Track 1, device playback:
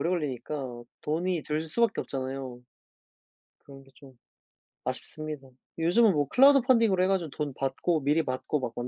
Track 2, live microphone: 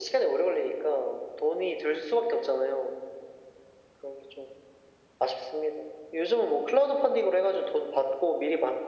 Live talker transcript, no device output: none

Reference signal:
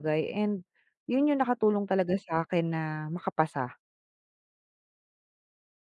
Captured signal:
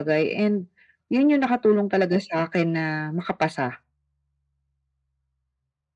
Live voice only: none

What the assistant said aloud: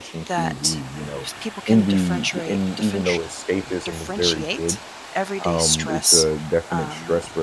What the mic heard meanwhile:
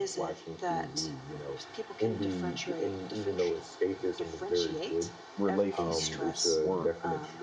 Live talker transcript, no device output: relationships work

